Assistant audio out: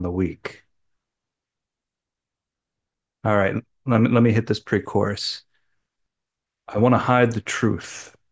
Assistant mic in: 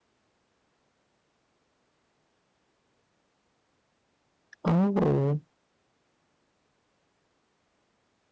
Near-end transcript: Oh,

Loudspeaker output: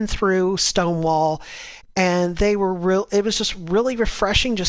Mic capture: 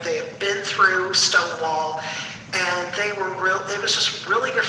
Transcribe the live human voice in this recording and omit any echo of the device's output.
none

